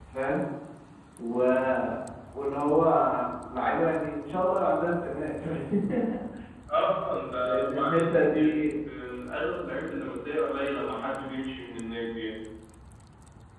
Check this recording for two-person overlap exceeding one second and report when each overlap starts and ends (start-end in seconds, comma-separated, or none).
7.4-8.7